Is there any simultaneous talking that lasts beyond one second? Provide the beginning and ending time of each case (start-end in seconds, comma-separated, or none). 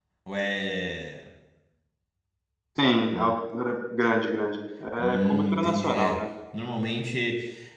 5.0-6.2